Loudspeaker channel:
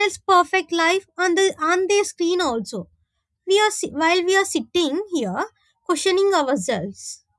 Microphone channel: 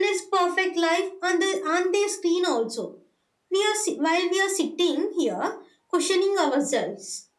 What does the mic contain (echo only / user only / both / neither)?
echo only